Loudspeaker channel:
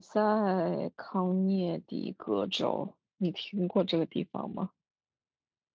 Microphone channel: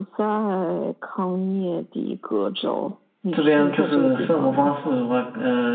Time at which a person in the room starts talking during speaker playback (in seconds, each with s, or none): 3.3 s